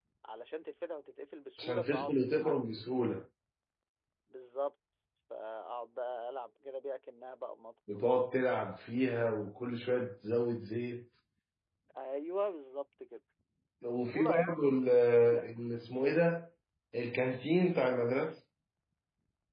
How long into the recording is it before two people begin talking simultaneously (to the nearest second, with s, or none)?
2 s